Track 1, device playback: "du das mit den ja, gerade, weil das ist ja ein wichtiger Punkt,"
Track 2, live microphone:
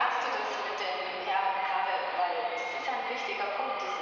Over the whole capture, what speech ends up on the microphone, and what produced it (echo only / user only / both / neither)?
echo only